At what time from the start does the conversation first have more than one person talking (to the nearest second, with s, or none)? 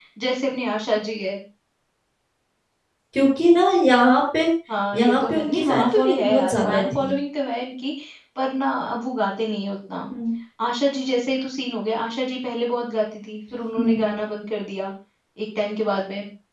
5 s